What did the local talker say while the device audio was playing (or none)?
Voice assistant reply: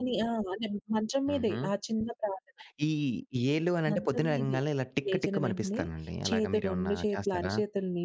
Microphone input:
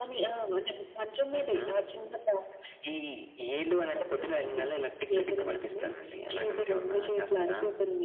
none